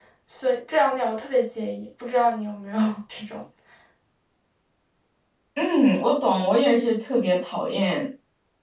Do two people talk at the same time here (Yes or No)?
No